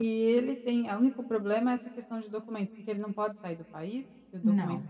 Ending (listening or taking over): taking over